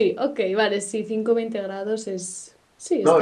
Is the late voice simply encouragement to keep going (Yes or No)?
No